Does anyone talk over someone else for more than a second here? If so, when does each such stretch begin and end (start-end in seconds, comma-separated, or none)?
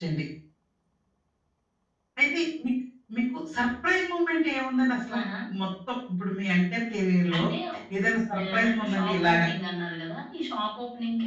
8.0-9.4